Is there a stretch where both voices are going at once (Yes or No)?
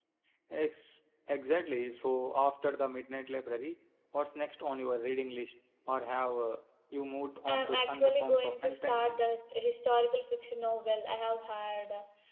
Yes